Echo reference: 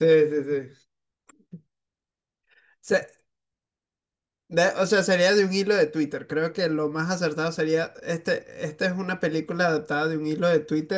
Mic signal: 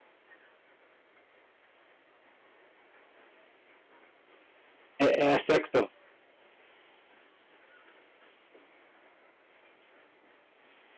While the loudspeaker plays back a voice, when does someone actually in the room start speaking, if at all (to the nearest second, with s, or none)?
5 s